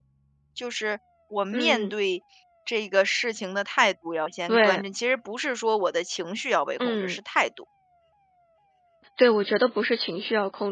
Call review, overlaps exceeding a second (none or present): none